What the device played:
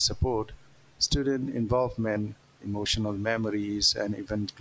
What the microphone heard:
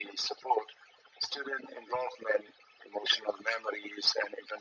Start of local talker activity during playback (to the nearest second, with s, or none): none